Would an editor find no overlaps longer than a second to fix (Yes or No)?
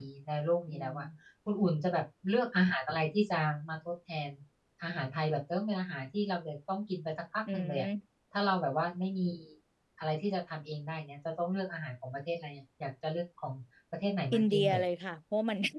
Yes